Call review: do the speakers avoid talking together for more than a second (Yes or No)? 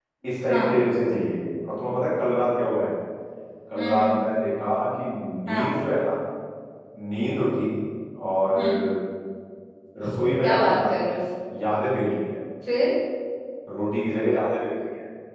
Yes